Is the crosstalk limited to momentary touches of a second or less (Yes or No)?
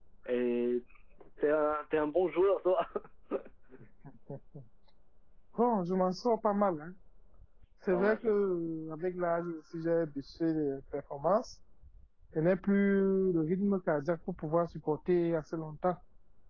Yes